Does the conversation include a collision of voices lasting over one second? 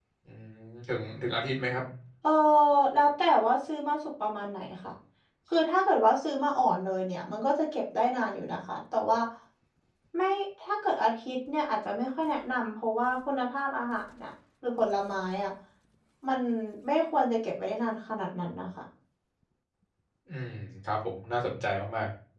No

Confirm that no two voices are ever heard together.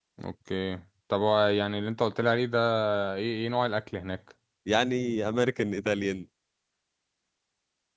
Yes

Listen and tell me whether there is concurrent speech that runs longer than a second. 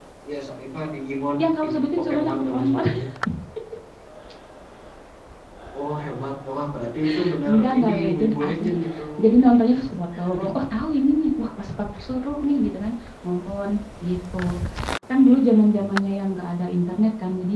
Yes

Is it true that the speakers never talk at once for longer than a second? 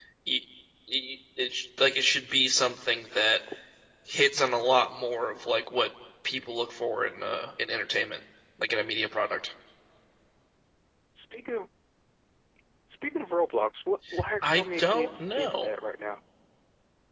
No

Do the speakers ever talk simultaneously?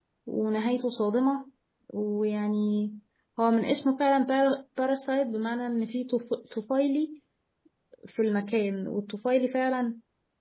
No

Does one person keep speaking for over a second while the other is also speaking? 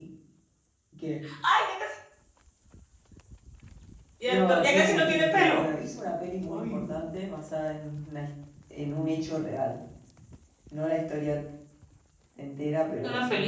Yes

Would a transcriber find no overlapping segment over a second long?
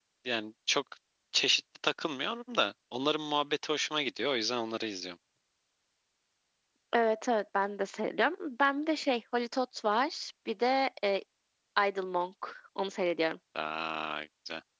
Yes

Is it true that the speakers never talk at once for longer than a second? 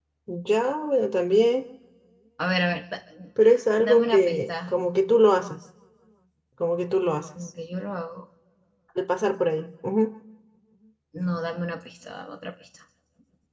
No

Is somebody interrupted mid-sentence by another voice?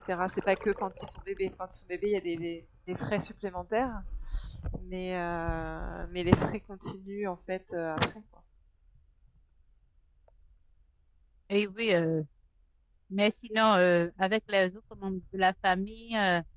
No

